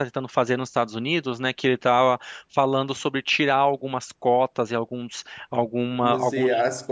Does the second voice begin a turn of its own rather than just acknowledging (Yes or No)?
Yes